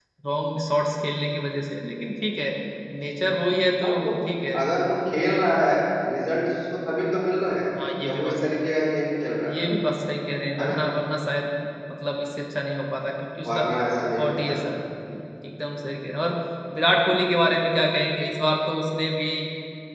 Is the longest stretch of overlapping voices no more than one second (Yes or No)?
Yes